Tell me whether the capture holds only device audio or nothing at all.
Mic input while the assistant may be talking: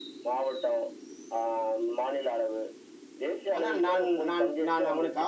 No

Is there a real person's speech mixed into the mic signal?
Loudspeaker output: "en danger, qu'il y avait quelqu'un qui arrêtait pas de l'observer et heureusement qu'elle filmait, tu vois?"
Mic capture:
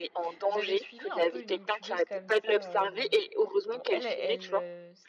Yes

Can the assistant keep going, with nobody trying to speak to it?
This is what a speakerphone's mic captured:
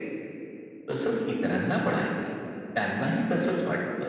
Yes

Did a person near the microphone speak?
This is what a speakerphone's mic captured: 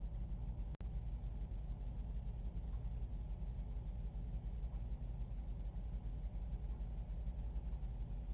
No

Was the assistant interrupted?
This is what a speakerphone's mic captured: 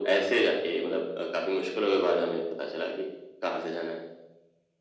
No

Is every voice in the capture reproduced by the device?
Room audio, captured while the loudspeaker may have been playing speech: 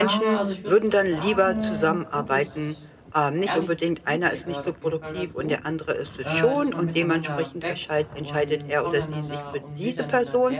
No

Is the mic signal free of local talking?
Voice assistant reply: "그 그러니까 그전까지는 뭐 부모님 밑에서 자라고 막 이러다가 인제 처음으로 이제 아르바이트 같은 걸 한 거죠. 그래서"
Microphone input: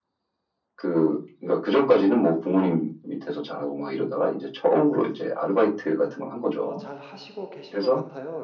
No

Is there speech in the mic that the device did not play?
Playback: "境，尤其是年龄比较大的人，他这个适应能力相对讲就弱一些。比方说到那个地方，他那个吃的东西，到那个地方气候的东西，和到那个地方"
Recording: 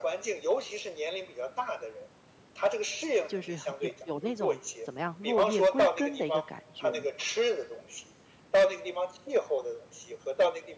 Yes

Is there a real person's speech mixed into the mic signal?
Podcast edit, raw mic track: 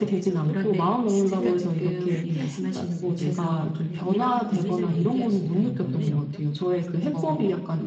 Yes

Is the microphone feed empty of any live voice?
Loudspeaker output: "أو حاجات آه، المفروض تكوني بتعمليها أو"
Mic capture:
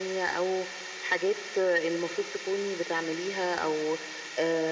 Yes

